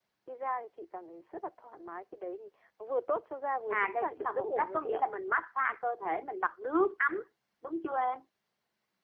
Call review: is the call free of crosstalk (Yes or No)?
No